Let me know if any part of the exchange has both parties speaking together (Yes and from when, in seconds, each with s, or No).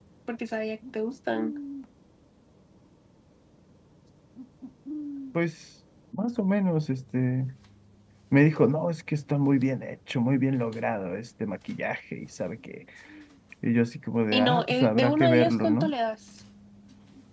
Yes, from 14.3 s